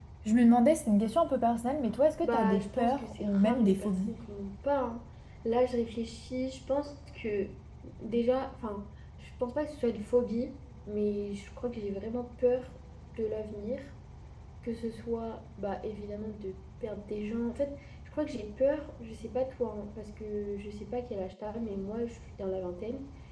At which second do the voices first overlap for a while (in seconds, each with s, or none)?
2.2 s